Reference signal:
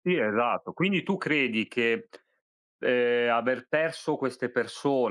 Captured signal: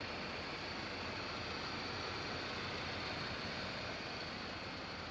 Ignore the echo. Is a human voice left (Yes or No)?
No